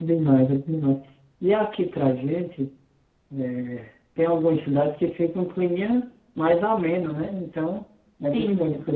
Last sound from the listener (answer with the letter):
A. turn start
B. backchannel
B